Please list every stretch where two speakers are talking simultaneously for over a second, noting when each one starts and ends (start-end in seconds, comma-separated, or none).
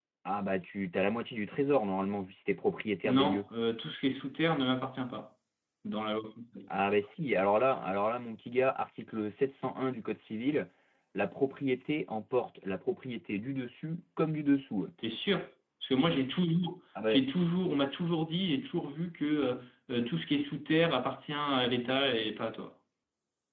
none